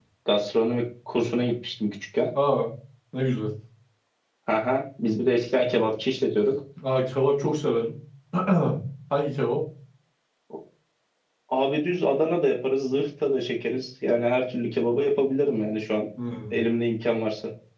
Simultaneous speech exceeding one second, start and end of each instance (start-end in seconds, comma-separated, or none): none